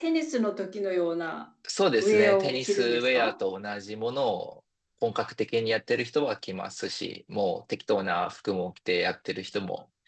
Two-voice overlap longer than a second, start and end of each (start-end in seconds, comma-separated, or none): 2.0-3.3